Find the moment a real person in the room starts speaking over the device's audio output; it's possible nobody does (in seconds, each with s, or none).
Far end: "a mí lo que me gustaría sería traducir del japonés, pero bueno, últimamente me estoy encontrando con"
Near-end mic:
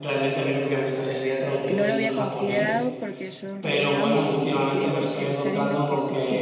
1.7 s